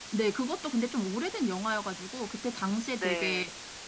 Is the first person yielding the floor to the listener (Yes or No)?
No